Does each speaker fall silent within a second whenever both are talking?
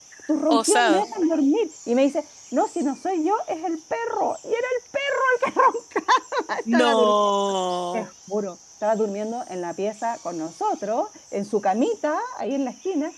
Yes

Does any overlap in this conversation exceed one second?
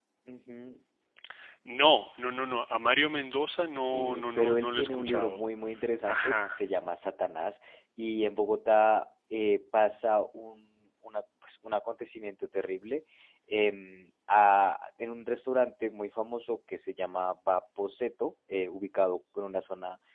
Yes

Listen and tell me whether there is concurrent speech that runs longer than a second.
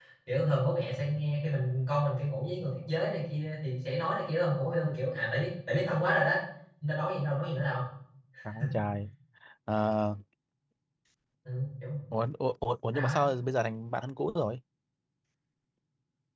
No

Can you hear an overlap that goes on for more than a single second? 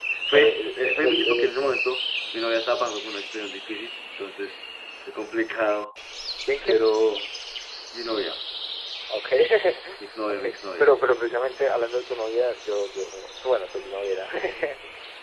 Yes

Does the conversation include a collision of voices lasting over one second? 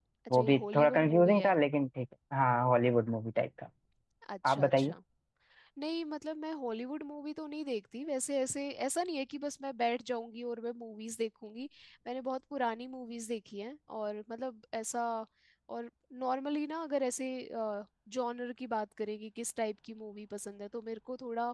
Yes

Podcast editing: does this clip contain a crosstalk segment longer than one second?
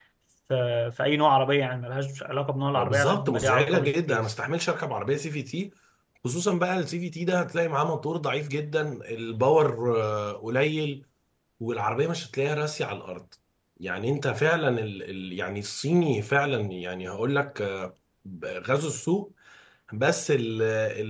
Yes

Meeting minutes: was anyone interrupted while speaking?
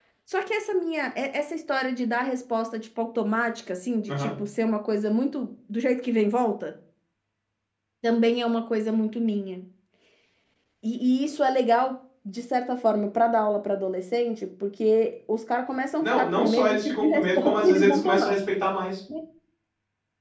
Yes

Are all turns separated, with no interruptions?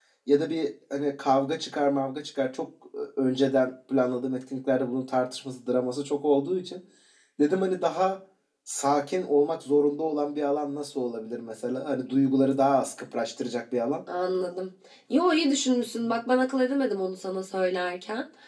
Yes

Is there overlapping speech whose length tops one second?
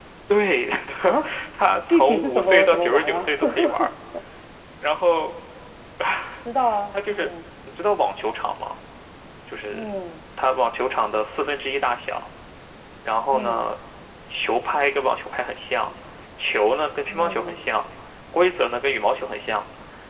Yes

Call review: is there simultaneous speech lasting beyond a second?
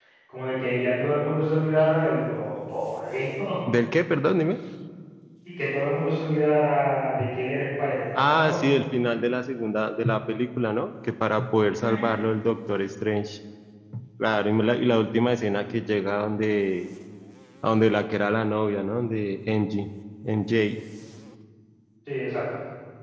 No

